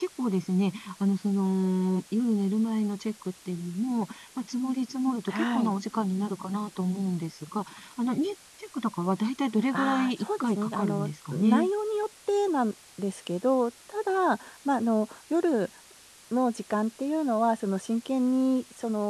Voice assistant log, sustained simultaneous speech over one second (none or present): present